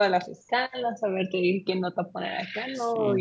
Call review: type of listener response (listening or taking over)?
listening